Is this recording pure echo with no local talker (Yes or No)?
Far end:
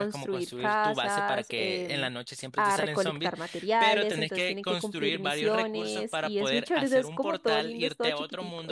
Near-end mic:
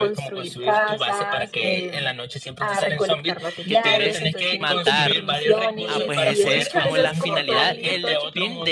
No